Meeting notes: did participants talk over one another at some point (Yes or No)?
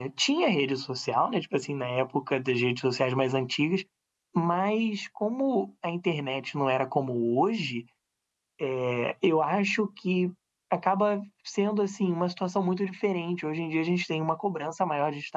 No